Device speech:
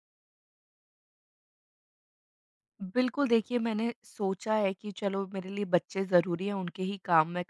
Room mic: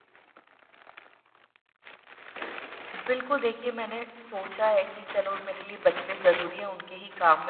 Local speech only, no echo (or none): none